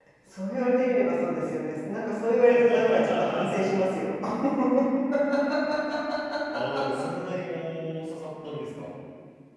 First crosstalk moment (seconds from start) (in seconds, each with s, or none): 2.5 s